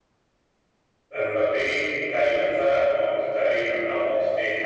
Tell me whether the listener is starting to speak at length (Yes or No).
Yes